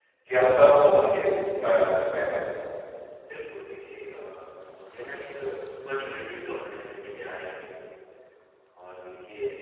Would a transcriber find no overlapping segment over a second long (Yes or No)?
Yes